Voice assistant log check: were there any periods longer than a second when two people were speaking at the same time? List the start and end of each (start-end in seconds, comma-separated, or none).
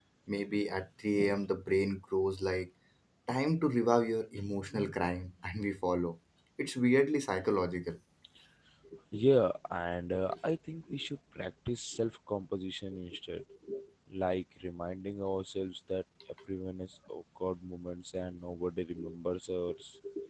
none